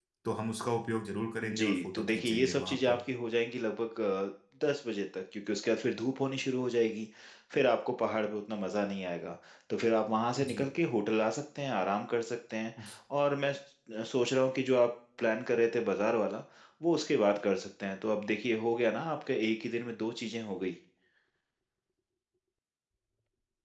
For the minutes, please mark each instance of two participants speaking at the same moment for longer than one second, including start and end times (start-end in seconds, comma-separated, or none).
1.4-3.0